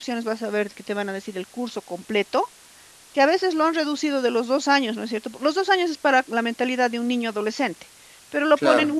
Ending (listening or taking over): listening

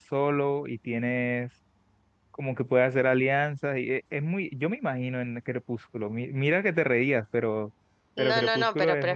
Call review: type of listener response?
taking over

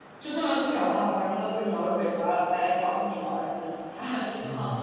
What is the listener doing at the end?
listening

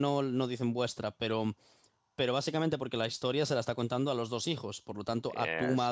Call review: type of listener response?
listening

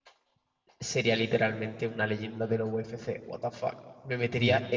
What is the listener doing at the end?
listening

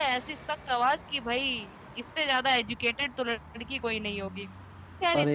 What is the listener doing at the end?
listening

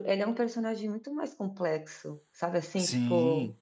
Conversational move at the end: listening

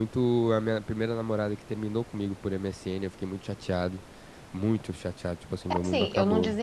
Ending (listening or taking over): taking over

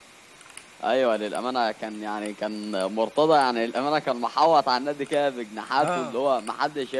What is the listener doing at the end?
listening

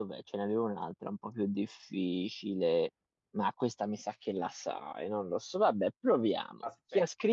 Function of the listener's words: listening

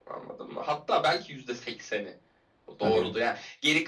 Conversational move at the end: listening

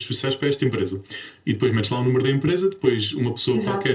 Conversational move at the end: listening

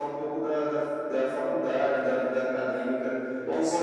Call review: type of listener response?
listening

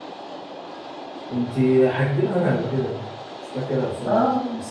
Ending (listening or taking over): taking over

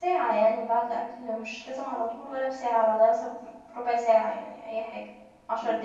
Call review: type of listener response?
taking over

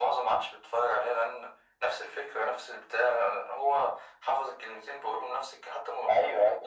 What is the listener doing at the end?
taking over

